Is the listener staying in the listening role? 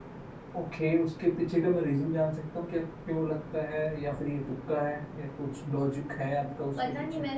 No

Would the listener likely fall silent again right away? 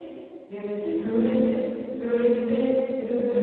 Yes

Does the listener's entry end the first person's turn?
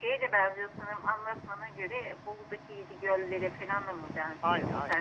Yes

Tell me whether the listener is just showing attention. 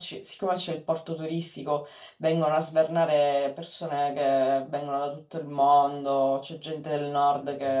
Yes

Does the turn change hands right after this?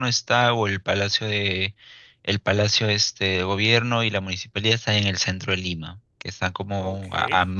No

